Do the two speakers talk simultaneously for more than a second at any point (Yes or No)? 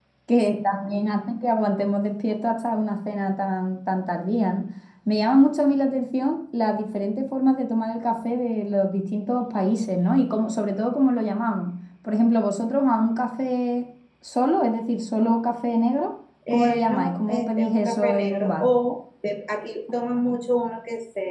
Yes